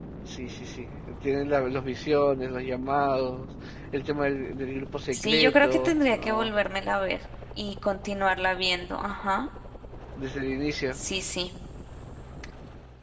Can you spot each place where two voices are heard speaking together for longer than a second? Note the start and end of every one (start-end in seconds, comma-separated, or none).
5.1-6.5